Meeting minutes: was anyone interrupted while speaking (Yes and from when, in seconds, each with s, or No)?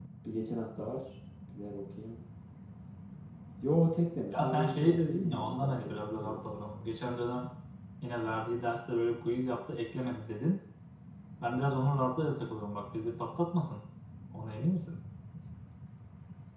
Yes, from 4.3 s